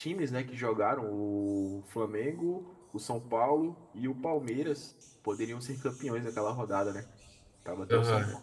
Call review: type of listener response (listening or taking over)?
taking over